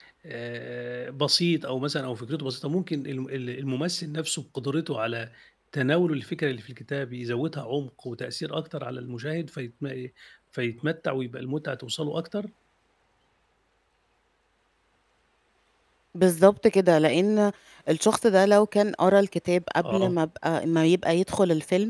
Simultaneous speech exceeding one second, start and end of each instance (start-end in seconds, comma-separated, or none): none